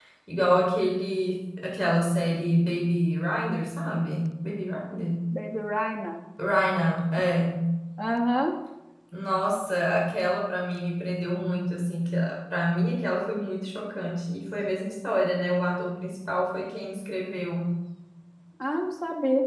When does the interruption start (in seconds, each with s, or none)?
none